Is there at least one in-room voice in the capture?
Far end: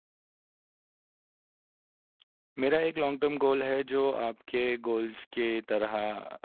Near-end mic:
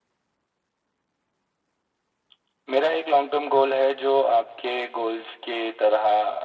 No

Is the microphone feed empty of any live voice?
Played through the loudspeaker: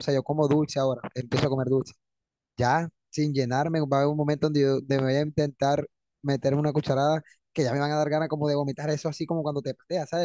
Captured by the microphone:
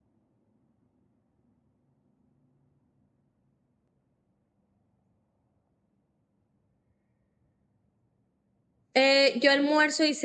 No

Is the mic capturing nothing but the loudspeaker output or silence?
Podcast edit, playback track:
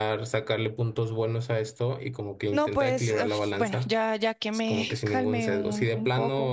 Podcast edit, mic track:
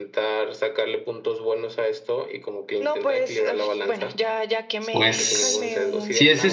No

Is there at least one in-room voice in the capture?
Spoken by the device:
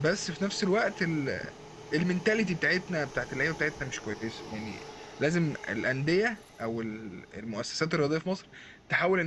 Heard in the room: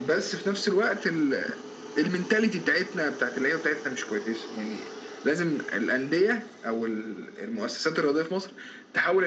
No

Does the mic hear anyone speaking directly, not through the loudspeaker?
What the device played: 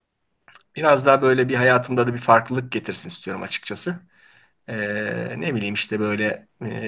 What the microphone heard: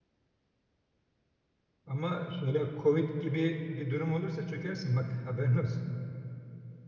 Yes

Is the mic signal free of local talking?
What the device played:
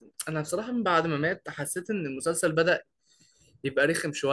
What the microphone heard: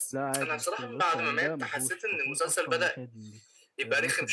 No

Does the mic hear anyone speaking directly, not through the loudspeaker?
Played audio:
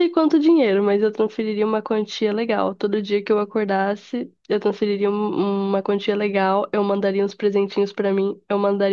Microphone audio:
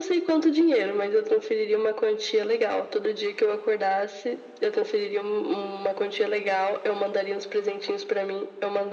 No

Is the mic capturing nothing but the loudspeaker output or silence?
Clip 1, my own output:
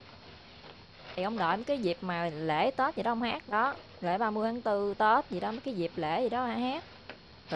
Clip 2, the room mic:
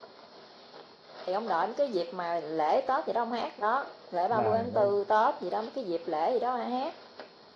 No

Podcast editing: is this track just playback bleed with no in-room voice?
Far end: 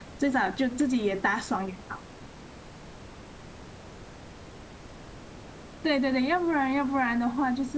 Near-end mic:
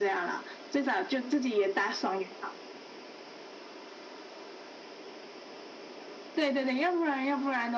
Yes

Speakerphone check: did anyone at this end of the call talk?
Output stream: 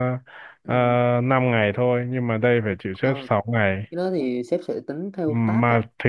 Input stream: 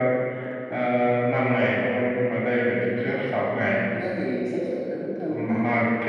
No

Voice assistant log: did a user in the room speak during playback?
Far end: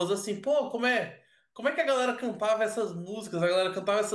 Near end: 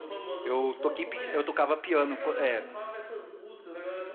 Yes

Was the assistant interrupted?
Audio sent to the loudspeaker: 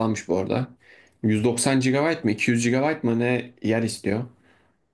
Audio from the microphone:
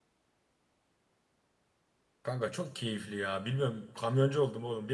Yes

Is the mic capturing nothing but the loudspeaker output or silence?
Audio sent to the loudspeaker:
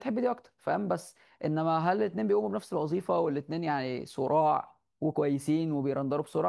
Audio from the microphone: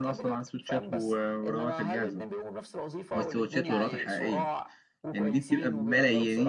No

